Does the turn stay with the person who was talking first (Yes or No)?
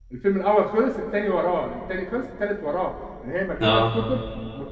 Yes